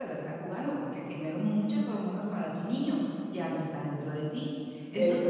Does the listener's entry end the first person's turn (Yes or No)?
No